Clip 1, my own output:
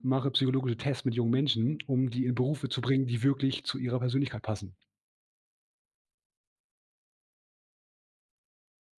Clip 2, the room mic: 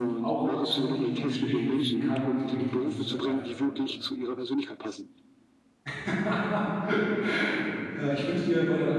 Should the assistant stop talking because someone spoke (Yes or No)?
Yes